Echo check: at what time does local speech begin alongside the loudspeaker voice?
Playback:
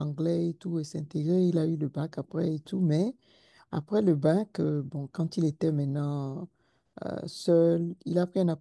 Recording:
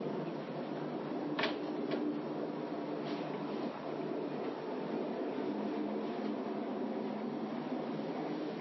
none

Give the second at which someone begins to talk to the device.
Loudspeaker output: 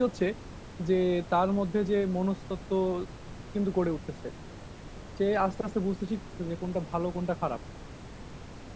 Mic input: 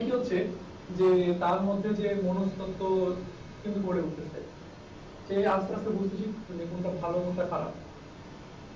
none

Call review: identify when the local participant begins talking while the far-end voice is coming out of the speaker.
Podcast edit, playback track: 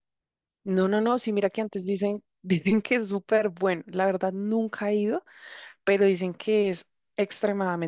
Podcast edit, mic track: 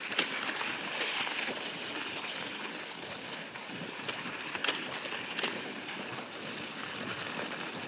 none

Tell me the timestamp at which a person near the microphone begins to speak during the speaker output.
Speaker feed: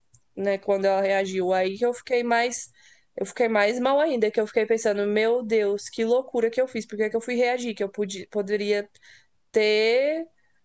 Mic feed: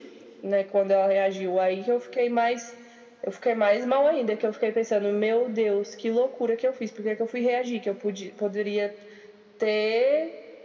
none

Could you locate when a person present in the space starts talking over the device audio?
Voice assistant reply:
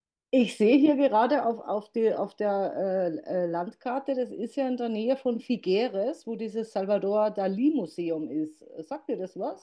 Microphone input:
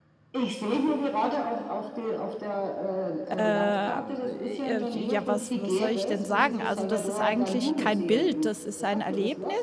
3.4 s

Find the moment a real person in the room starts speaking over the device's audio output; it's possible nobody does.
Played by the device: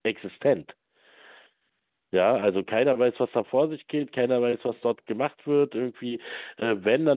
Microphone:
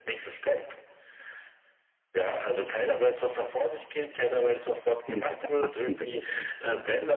5.0 s

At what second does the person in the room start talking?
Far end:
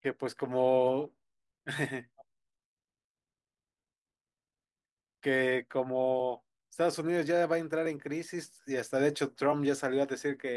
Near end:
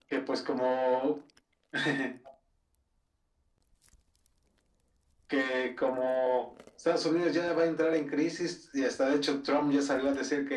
none

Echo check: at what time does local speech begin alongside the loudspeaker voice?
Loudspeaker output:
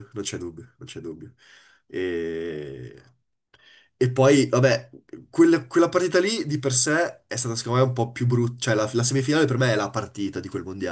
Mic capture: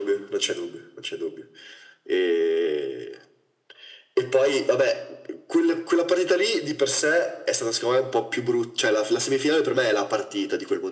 none

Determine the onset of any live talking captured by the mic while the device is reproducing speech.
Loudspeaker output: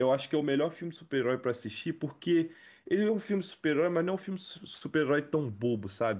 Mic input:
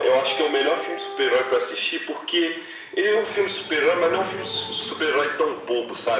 none

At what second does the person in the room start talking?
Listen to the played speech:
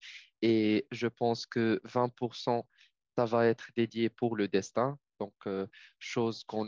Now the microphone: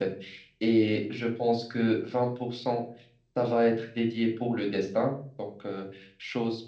none

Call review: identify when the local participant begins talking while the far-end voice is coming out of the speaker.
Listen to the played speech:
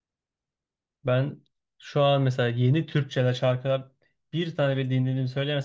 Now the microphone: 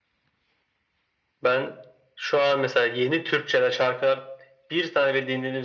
none

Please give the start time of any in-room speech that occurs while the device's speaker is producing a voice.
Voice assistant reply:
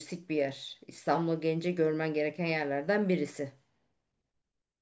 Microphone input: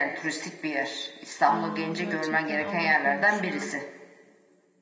1.5 s

